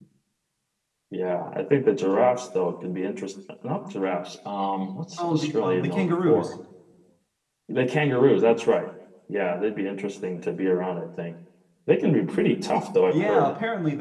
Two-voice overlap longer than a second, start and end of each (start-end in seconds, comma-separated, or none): 5.2-6.5